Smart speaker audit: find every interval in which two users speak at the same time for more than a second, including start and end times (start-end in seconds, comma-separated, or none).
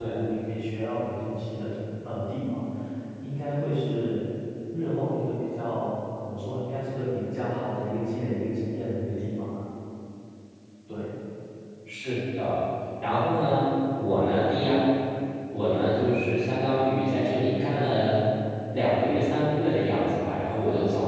none